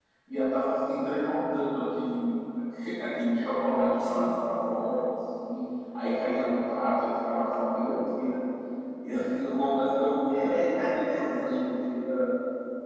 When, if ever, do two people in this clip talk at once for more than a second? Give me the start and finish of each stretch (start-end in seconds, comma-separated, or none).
10.3-11.5